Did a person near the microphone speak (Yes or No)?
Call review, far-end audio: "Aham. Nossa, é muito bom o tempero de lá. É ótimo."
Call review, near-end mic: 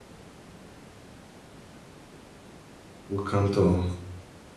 Yes